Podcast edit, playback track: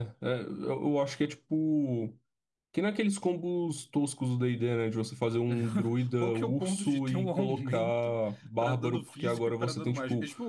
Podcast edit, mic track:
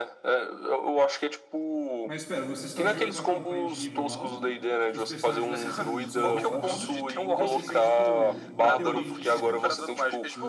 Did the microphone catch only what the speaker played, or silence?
No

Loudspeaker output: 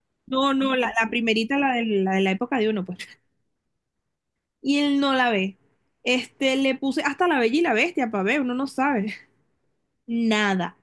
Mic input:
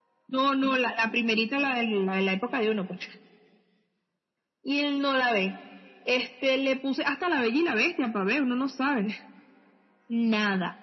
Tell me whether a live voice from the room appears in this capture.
No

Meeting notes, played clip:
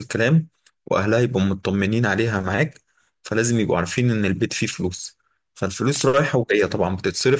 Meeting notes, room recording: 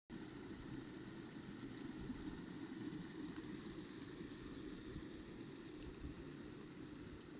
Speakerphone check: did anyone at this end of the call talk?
No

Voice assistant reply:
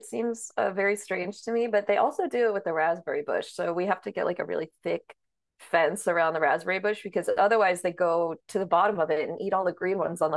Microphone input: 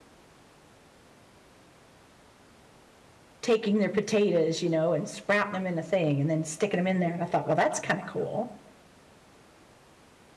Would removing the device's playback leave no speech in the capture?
No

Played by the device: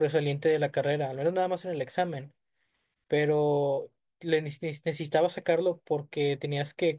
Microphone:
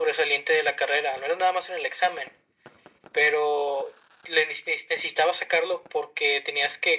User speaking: No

